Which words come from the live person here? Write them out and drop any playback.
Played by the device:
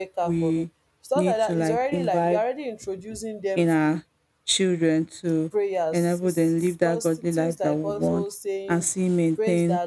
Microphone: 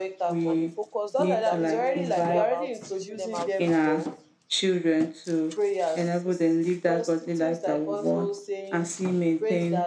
And the focus during that period should be about teaching them how to love,

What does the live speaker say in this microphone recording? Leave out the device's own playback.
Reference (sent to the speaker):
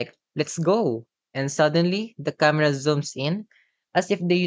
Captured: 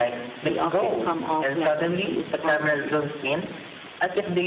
They often come off like confused poetry.

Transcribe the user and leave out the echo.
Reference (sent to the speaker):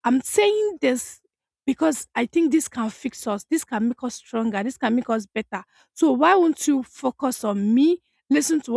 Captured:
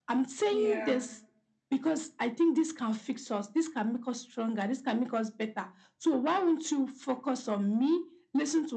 Yeah.

